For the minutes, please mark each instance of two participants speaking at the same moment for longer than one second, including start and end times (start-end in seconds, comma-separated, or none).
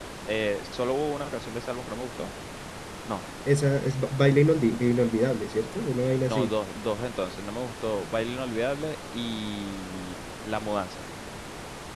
none